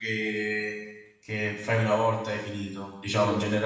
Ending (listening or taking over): listening